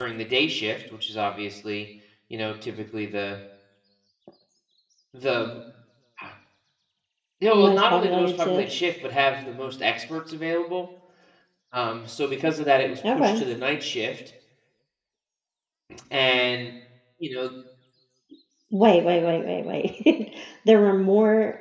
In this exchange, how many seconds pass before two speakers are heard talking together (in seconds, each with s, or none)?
7.5 s